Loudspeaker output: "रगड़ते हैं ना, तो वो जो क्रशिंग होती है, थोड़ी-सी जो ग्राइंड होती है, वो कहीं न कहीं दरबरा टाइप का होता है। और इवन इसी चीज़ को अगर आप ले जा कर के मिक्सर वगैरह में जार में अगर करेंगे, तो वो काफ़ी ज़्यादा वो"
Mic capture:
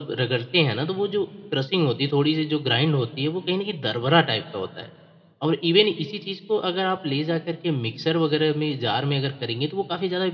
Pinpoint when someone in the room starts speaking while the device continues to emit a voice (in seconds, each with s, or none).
none